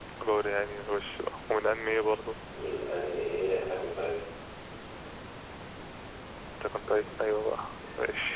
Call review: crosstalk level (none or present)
none